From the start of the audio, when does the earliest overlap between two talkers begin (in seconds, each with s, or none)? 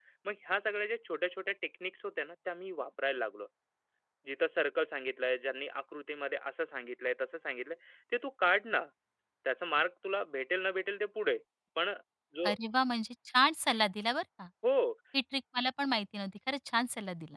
none